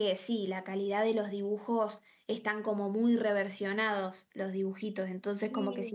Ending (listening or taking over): listening